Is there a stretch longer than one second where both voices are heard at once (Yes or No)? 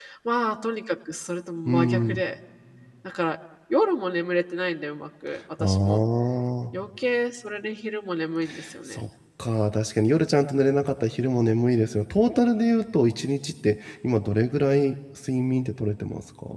No